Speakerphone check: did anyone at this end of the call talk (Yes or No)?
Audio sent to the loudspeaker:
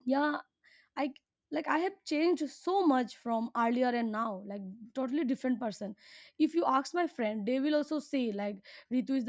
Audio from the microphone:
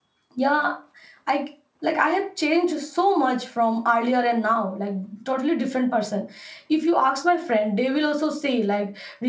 No